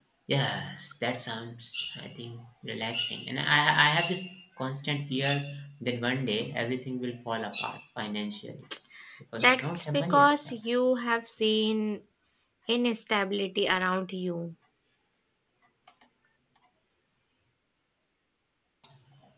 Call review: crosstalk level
present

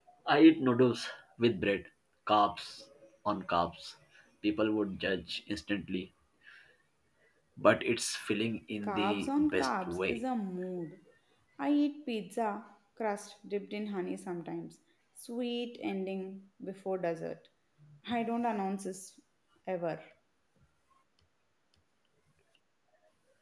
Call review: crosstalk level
present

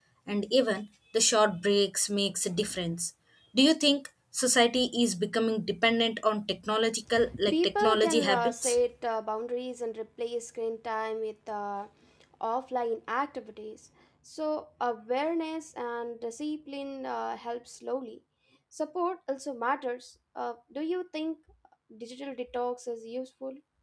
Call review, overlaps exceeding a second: present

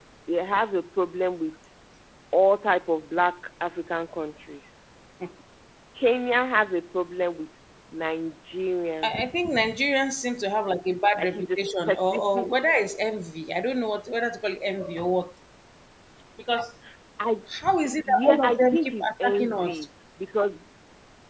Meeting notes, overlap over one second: present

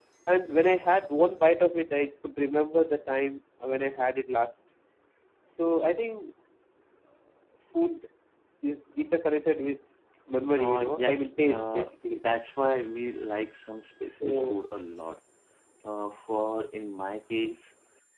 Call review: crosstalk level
present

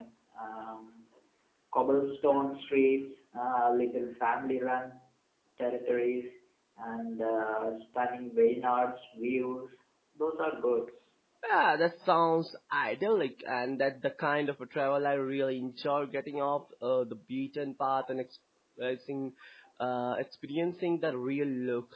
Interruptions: none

